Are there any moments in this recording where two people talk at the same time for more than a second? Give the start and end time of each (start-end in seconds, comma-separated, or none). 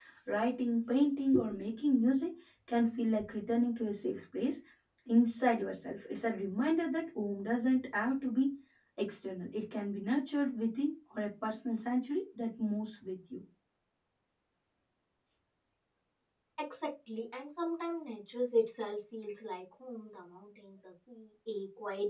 none